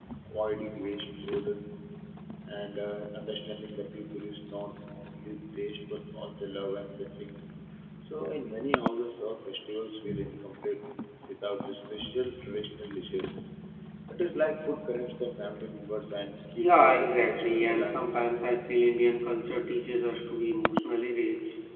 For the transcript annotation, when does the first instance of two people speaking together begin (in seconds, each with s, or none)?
16.6 s